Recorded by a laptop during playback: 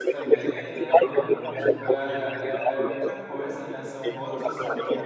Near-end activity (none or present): present